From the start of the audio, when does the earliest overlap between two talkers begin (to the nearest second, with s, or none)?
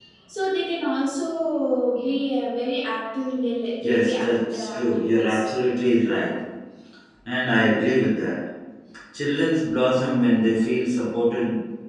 4 s